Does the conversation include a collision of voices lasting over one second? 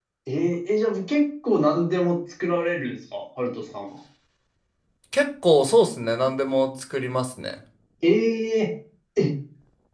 No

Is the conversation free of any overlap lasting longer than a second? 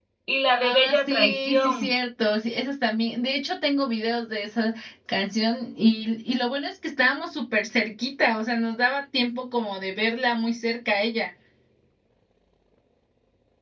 No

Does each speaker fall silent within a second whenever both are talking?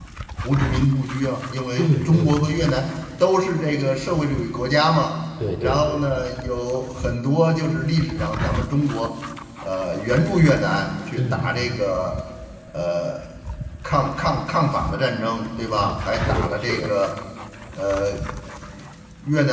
No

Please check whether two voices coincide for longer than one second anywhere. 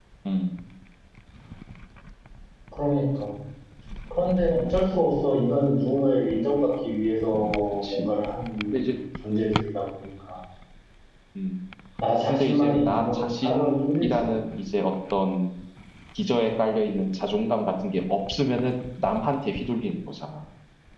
Yes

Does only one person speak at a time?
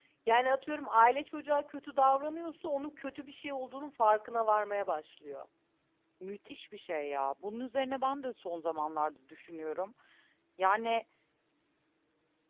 Yes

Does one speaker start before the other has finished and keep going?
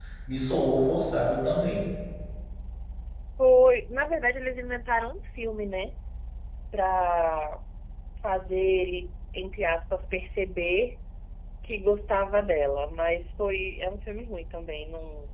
No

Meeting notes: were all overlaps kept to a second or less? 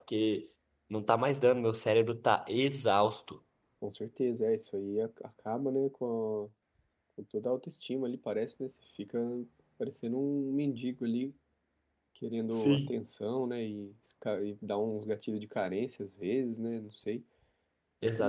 Yes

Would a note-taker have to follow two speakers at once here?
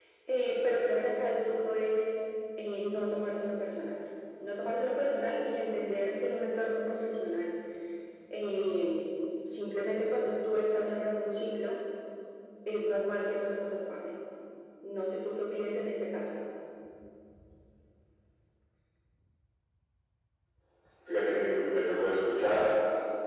No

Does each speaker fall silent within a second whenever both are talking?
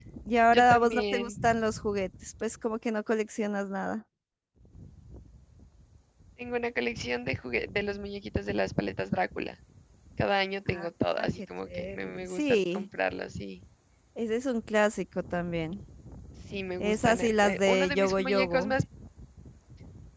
No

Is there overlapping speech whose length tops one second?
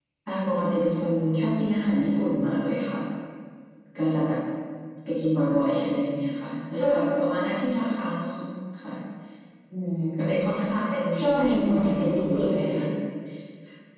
Yes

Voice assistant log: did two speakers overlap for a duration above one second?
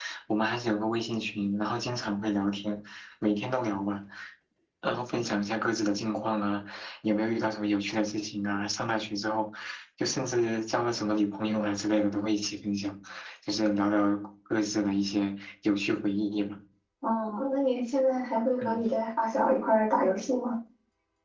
No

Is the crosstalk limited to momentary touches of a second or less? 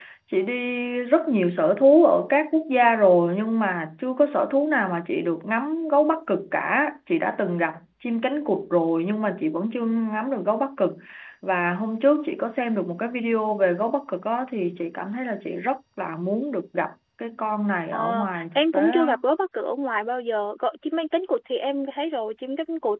No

